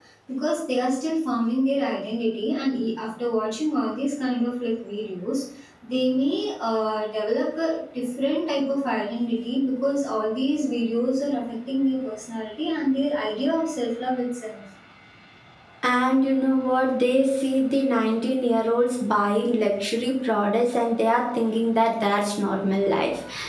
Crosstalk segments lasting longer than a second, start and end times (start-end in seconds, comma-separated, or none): none